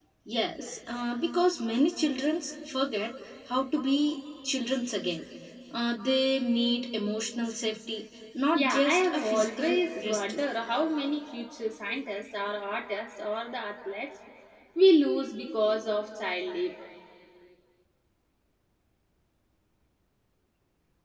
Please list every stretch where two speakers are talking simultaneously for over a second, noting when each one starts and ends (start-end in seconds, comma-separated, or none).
8.5-10.4